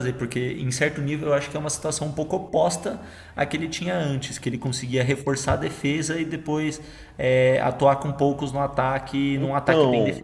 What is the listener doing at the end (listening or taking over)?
taking over